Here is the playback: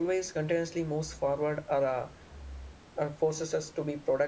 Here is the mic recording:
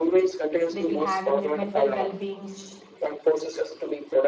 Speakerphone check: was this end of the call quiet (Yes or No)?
No